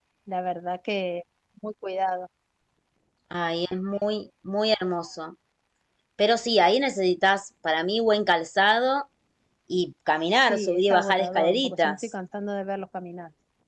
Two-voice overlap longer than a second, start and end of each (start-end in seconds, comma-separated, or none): 10.4-12.1